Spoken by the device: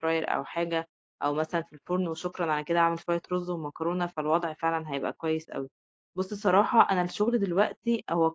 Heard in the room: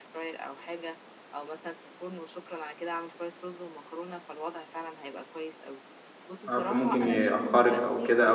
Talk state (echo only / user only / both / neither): both